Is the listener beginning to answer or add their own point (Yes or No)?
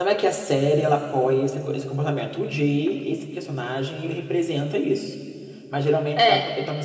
No